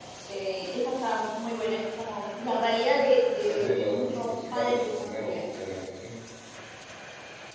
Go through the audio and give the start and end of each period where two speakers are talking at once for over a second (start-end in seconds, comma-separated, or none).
3.4-5.4